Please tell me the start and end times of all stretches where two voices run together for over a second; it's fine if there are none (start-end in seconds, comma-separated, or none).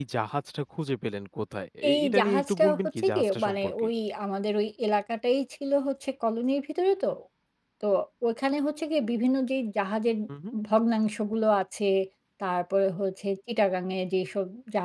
1.9-3.9